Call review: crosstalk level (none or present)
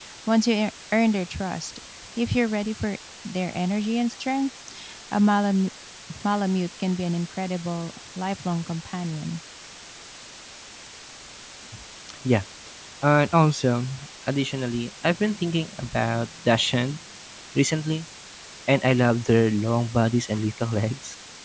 none